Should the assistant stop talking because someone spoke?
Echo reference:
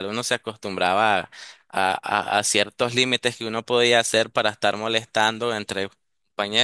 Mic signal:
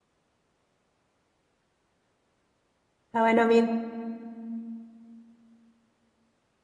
Yes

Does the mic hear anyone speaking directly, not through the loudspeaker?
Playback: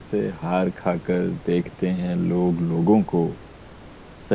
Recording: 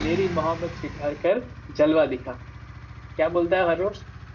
Yes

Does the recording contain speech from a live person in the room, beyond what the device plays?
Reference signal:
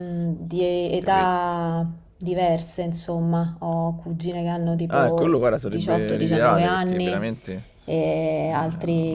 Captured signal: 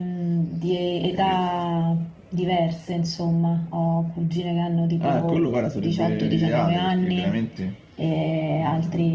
No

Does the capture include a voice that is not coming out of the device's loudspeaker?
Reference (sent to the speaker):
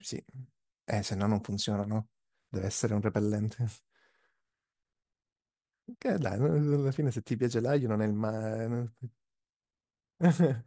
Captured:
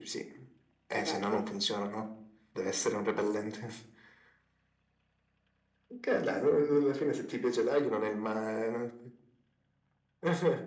Yes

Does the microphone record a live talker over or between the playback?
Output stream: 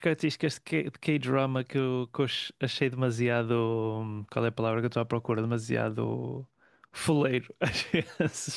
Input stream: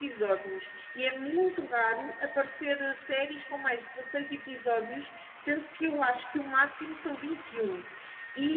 Yes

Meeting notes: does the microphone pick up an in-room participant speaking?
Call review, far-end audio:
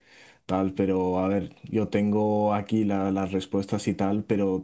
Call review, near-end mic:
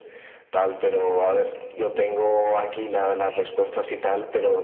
No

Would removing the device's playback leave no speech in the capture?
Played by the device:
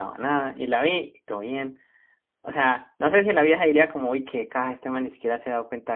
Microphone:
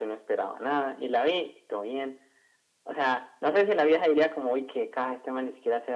Yes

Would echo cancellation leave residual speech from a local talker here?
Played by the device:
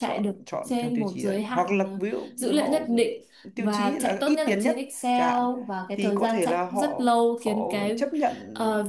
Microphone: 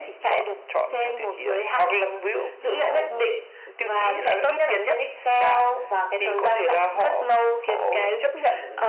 No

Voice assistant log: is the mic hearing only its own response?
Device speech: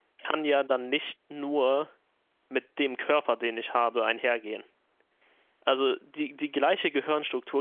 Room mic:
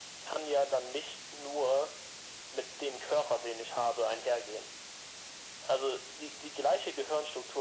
Yes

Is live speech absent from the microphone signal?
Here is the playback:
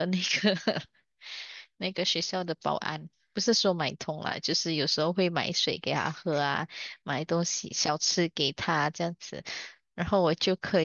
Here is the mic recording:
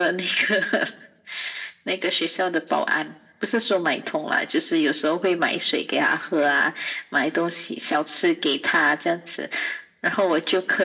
Yes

